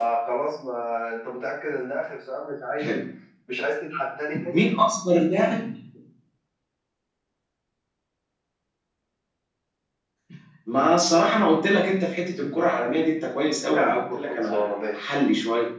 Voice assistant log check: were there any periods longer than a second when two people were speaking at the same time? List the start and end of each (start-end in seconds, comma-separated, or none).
13.7-15.1